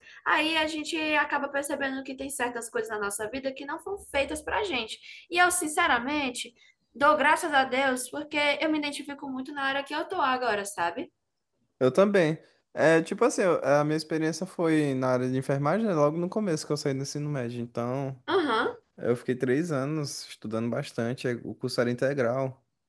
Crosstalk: none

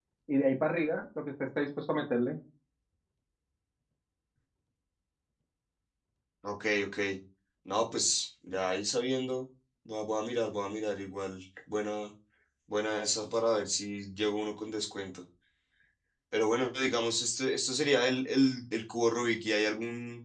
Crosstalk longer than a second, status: none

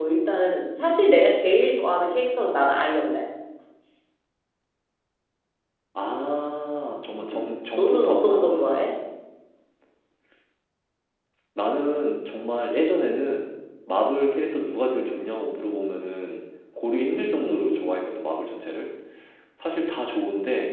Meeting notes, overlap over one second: present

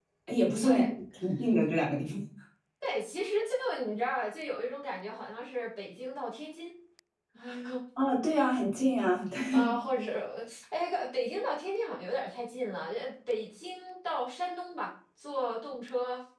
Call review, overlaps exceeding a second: none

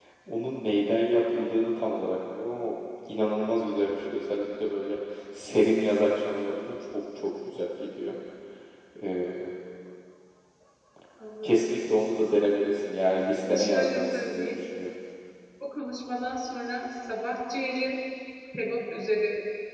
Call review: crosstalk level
present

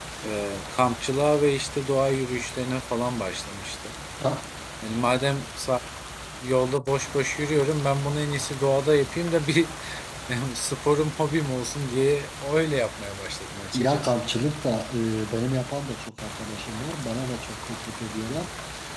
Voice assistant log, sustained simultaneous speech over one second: none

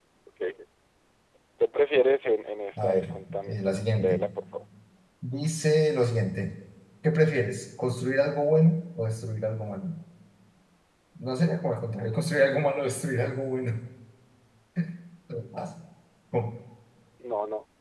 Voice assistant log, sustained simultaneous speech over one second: present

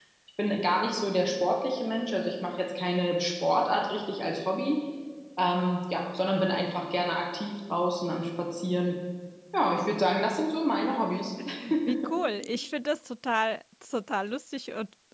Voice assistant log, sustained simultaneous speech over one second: none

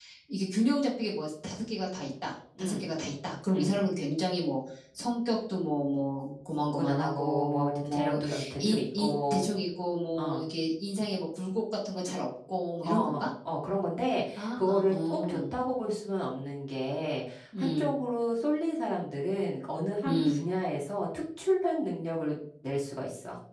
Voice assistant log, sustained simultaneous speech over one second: present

